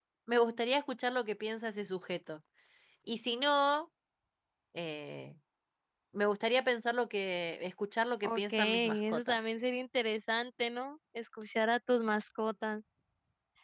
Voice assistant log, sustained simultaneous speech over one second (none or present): present